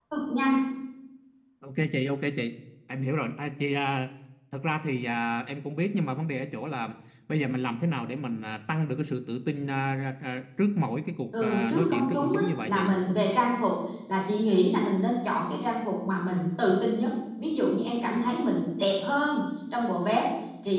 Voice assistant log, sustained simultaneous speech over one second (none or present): present